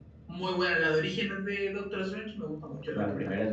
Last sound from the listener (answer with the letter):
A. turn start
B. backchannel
A